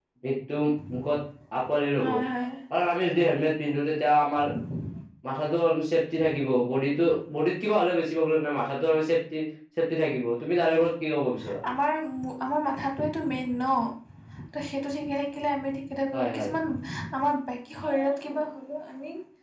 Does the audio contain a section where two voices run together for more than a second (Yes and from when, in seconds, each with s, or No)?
No